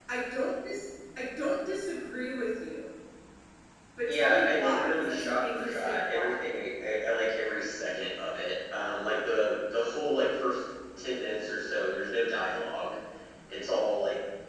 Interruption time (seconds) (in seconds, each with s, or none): 4.1 s